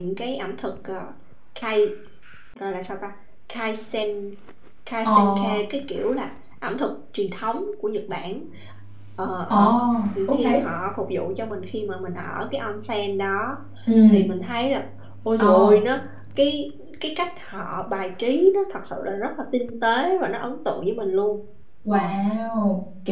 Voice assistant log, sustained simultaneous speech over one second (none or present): none